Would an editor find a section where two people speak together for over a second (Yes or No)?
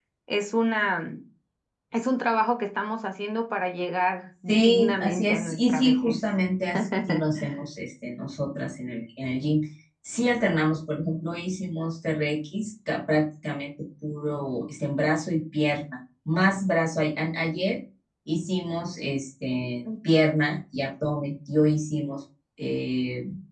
Yes